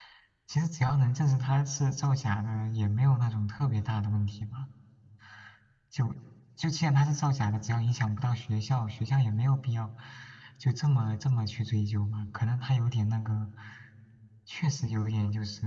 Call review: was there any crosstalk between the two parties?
No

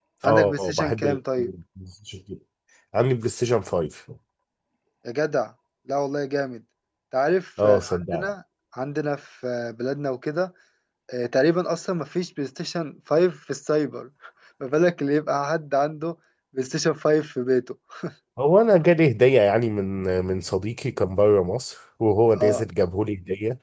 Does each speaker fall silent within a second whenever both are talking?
No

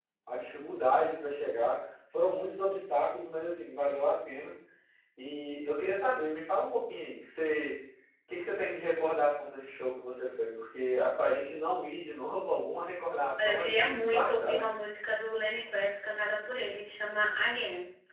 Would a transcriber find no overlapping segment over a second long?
No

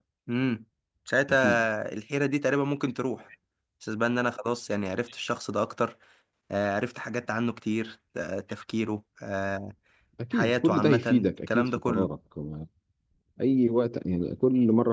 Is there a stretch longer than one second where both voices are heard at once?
Yes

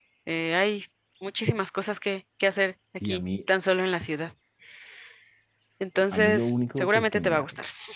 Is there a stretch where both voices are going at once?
Yes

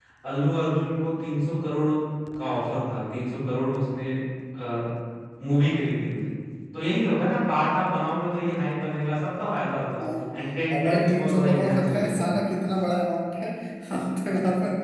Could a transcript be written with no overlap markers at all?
No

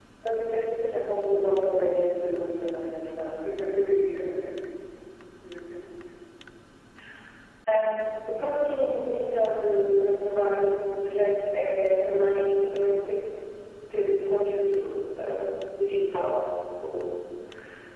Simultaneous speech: No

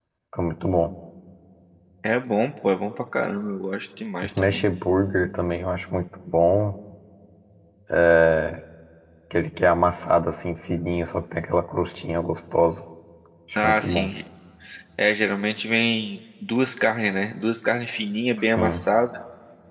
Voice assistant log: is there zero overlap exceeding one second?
Yes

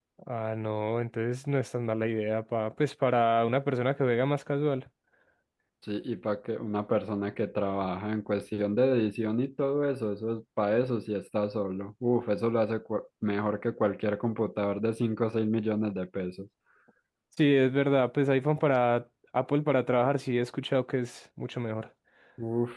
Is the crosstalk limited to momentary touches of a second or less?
Yes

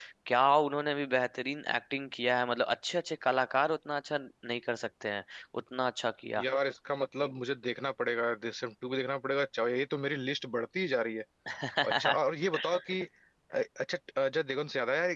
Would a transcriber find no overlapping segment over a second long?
Yes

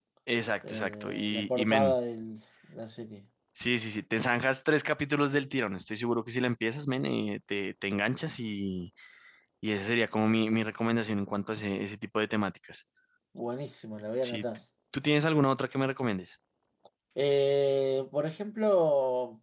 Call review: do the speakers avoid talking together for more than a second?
No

